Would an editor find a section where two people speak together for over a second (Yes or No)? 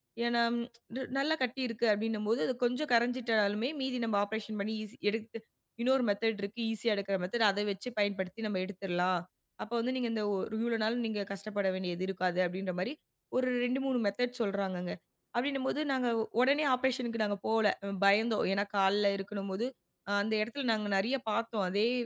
No